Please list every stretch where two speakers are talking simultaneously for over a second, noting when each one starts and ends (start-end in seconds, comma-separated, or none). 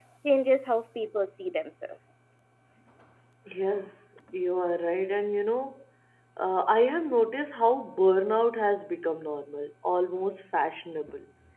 none